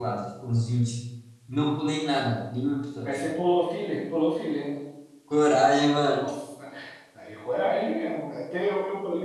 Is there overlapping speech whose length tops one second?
No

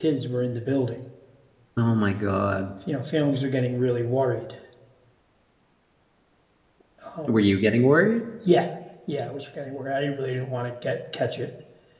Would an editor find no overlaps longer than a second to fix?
Yes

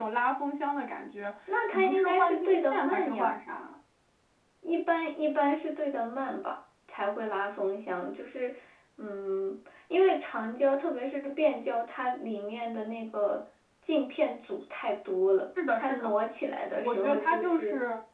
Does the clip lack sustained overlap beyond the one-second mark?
No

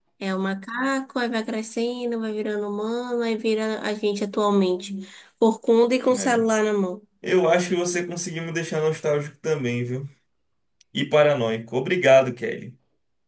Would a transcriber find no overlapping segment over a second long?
Yes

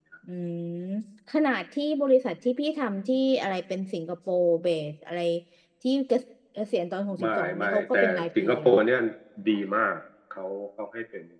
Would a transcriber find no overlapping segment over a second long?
No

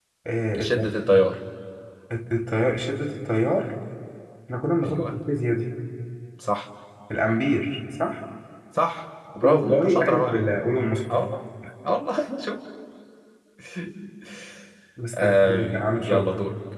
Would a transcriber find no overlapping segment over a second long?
No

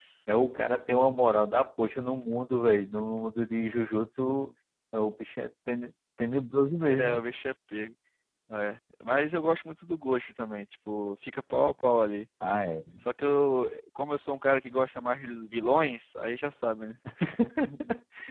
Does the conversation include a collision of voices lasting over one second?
No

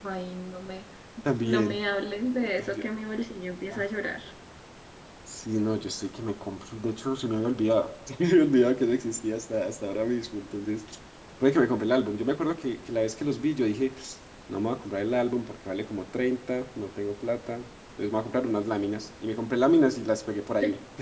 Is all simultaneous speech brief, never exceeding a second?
Yes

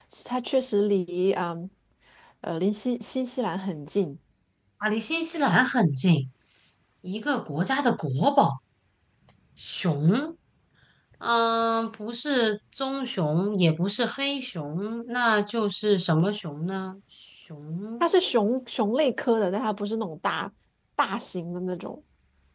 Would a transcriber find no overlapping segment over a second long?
Yes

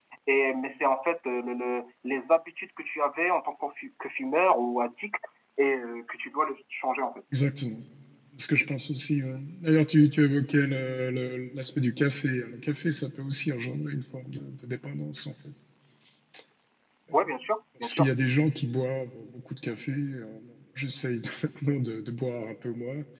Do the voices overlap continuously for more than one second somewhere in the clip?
No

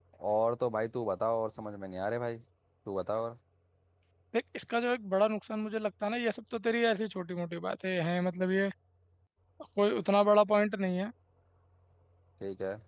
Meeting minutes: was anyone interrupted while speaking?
No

